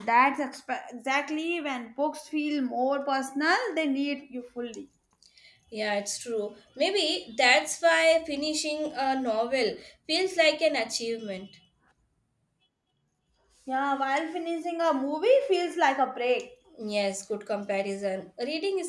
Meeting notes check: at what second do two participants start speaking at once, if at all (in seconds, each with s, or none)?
none